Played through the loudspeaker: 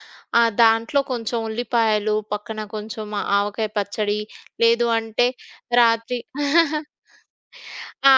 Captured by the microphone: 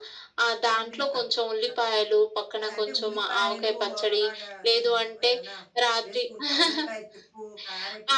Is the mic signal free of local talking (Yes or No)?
No